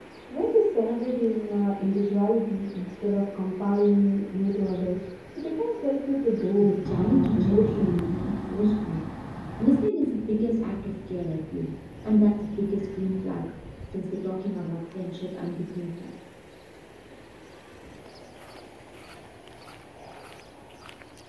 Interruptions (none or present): present